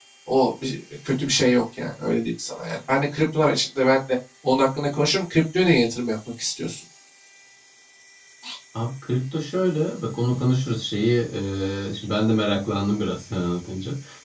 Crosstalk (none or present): none